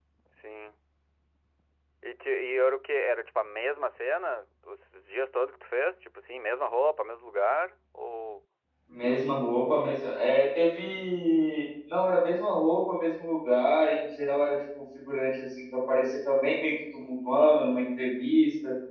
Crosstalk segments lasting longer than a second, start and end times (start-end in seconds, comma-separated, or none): none